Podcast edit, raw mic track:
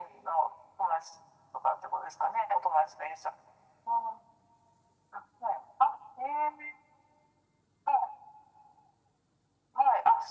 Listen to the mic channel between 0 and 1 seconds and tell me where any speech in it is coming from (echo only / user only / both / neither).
echo only